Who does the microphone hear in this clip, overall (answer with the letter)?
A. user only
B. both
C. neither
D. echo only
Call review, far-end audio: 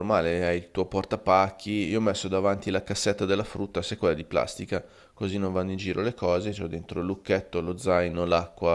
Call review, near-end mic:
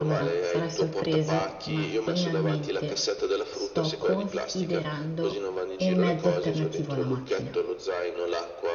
B